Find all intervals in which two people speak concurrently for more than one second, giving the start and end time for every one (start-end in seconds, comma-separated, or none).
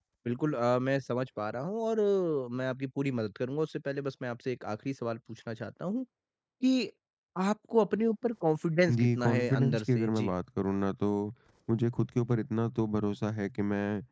9.0-10.3